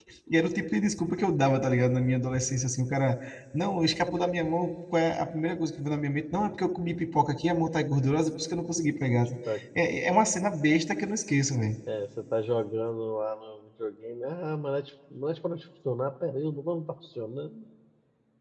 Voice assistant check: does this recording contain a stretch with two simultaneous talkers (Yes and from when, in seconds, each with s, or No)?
No